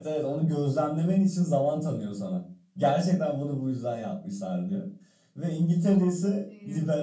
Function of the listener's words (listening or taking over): listening